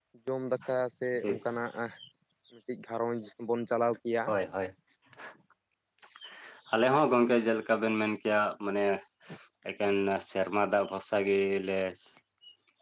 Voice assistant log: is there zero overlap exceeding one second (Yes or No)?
Yes